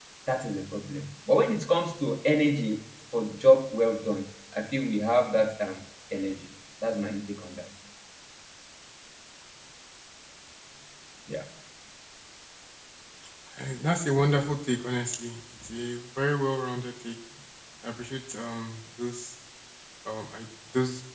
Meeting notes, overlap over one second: none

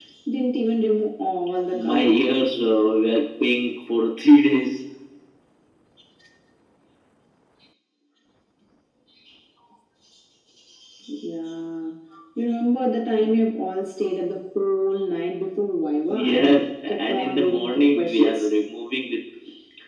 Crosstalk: present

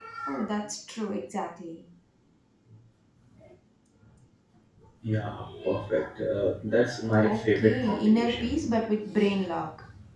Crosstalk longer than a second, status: present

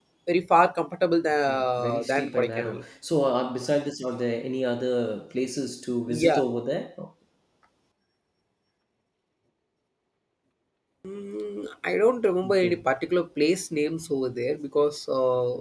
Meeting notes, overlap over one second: present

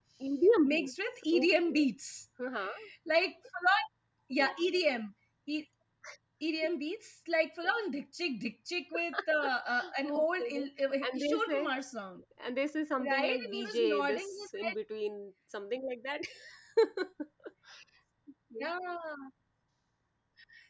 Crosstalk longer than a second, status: present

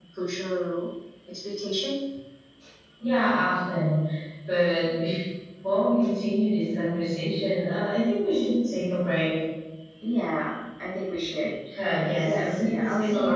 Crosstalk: present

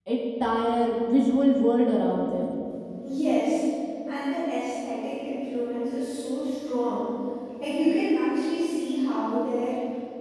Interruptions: none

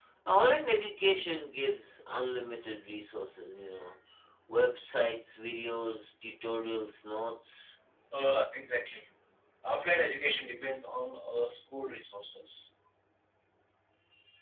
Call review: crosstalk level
none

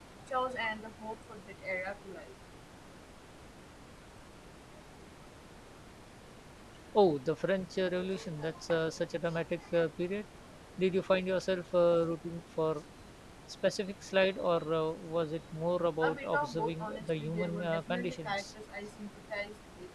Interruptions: present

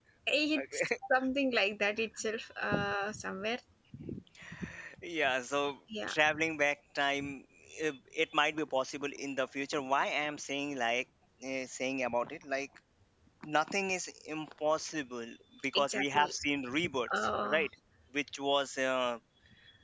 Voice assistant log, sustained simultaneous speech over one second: none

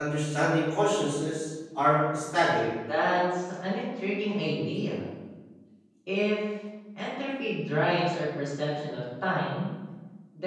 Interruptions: none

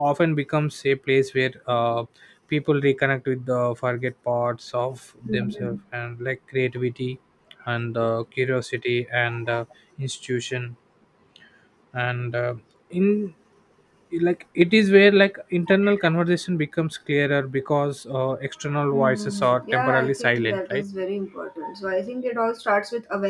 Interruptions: present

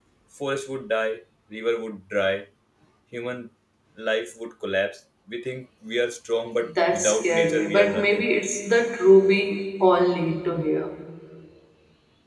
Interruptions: present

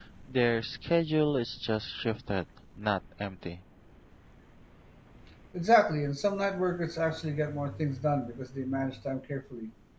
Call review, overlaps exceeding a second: none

